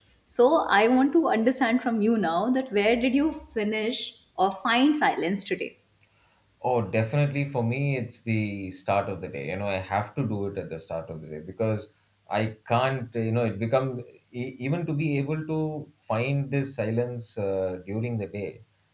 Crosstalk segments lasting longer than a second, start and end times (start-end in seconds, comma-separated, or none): none